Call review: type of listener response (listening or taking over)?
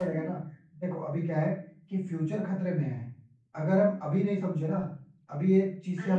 listening